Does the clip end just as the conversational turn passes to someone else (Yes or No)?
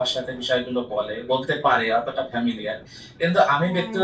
No